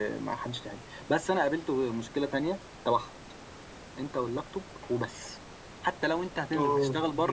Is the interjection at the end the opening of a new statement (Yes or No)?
No